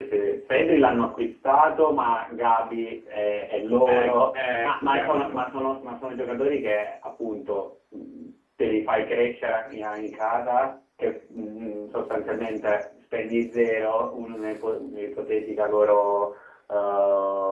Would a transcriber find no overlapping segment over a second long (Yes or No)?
No